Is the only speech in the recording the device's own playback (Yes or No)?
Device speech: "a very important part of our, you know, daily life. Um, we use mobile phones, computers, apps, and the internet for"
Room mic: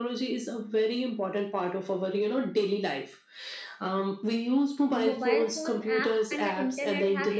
No